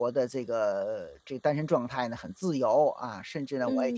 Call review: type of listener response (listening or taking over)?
taking over